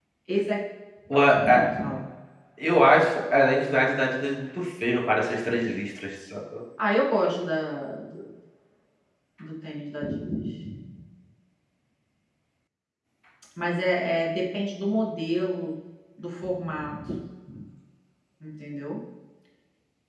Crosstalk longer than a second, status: none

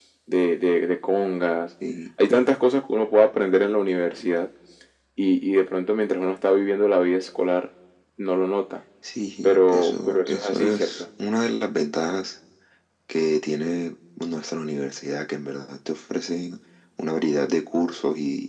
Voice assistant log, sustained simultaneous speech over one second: present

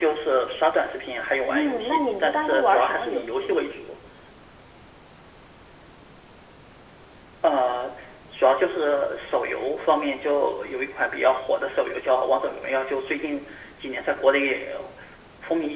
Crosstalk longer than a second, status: present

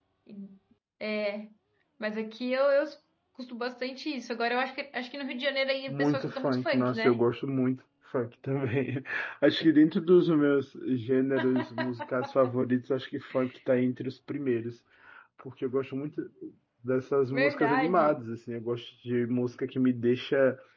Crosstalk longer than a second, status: present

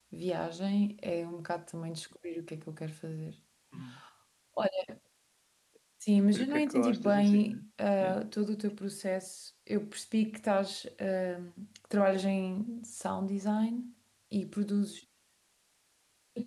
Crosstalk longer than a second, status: present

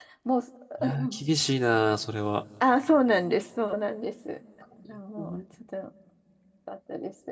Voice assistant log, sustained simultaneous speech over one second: none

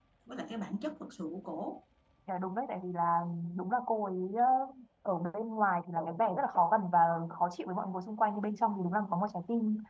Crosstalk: none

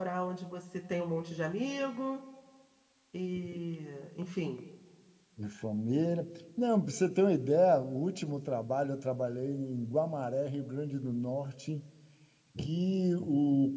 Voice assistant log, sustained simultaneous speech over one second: none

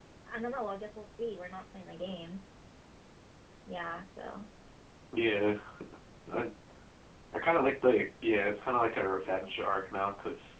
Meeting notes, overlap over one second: none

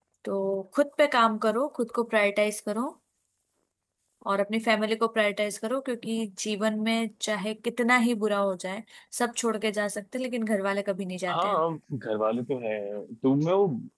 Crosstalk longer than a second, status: none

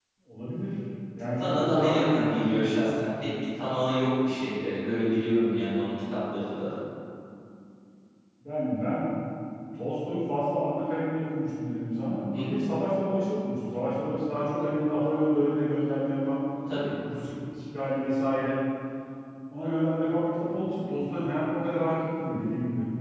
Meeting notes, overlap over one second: present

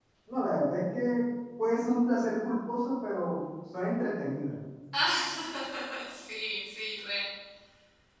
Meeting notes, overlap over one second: none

